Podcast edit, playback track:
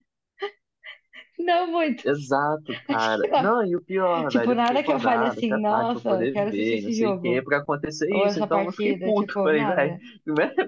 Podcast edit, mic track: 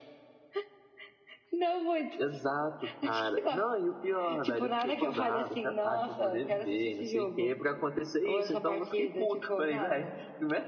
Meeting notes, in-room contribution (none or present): none